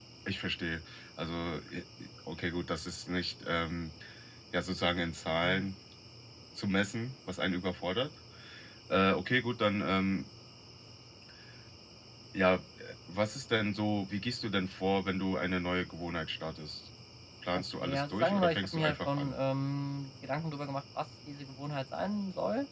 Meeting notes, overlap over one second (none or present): present